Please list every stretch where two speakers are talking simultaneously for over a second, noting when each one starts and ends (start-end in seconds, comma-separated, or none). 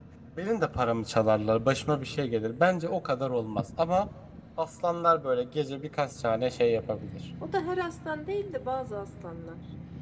none